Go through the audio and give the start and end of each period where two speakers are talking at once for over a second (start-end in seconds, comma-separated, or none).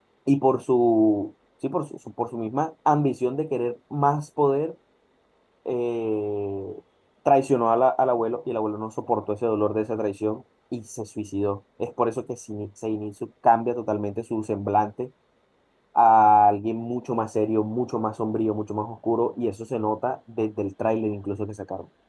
none